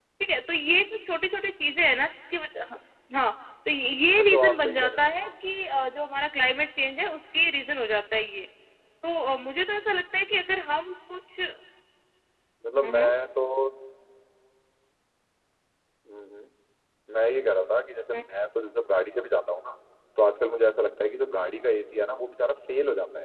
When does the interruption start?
4.1 s

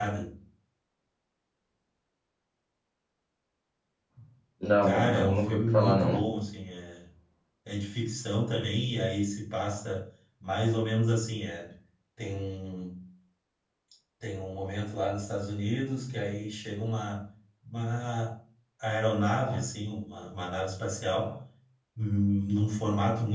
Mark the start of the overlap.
4.8 s

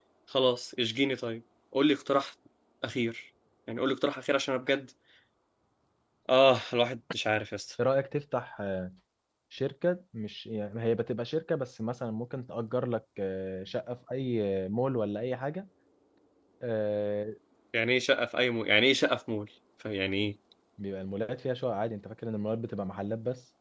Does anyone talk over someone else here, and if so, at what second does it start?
none

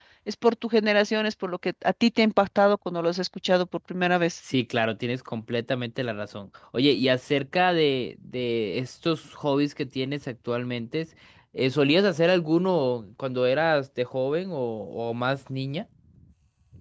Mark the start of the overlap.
none

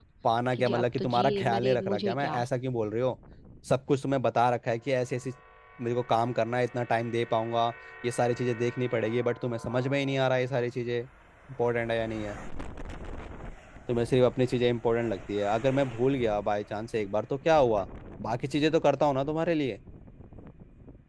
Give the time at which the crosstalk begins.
0.5 s

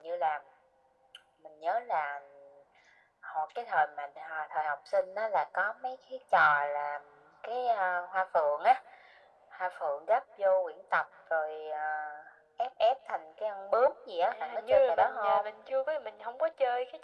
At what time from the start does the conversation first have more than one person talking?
14.3 s

